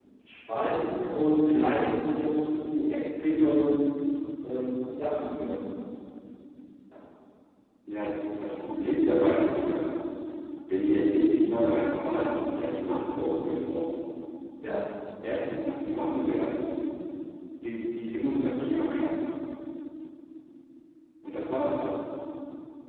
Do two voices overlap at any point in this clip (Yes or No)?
No